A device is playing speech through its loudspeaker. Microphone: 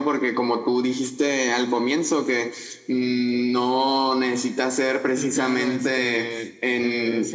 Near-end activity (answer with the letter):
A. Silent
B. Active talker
B